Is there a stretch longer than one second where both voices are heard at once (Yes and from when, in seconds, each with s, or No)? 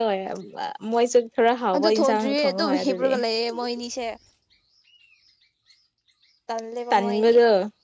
Yes, from 1.8 s